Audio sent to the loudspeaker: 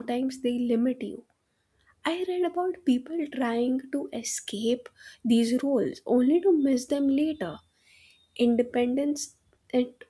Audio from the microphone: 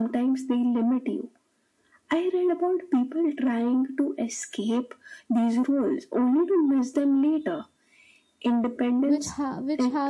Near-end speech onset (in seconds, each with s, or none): 9.1 s